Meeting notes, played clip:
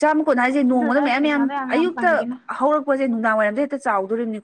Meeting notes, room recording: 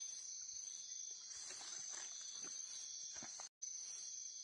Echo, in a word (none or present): none